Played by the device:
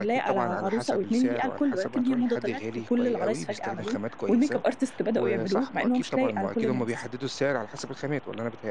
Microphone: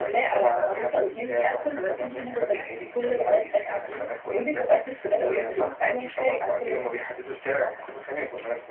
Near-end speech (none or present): none